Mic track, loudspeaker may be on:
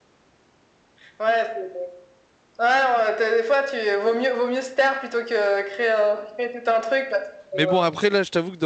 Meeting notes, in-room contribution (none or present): present